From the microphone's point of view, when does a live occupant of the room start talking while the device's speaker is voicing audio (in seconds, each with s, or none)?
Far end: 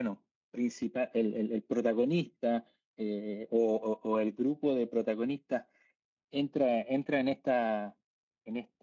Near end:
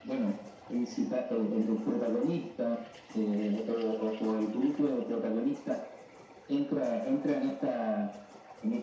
none